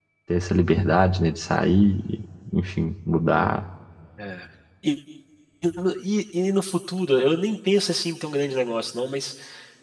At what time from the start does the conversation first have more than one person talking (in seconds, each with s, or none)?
none